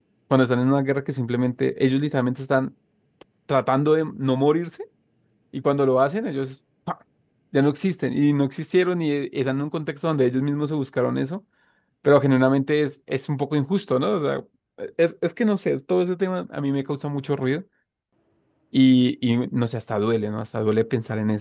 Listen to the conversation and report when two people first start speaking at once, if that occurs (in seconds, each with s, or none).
none